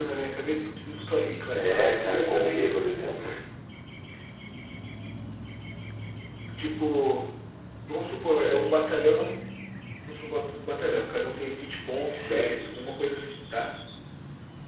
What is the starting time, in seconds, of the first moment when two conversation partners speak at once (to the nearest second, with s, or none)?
2 s